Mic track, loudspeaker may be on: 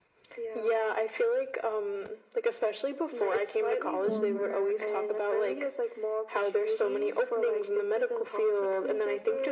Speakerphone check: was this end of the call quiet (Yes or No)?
No